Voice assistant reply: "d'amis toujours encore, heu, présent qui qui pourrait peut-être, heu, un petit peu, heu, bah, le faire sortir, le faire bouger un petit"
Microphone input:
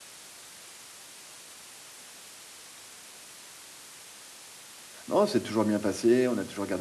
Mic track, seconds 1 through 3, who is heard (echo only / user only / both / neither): neither